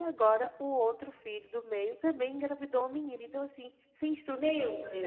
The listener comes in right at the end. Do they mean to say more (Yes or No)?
Yes